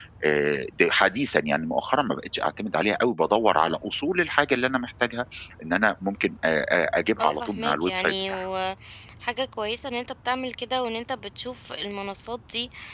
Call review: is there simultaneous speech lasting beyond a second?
Yes, from 7.2 s

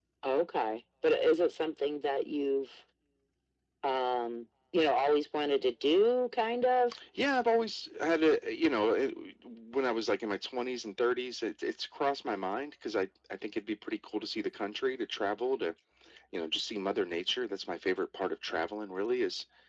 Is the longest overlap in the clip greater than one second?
No

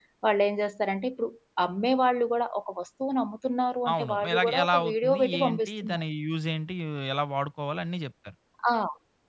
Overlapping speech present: Yes, from 3.9 s

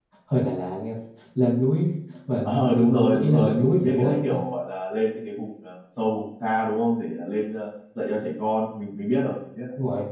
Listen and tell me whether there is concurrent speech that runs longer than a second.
Yes, from 2.4 s

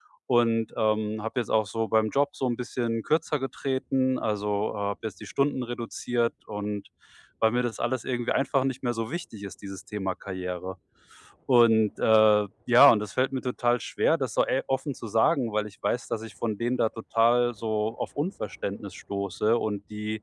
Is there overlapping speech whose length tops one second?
No

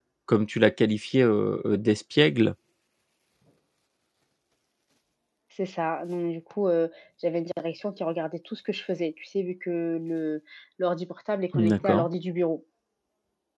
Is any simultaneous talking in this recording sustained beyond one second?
No

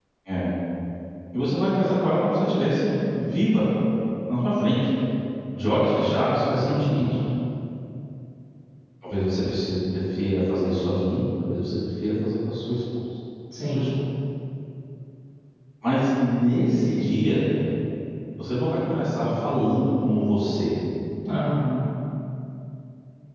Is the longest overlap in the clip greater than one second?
No

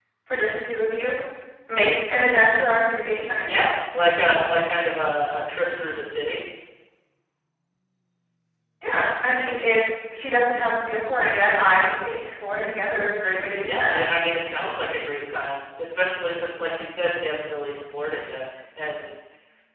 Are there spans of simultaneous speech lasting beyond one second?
No

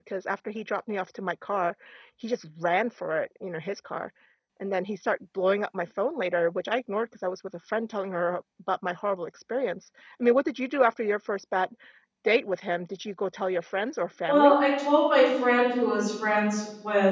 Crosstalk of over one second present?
No

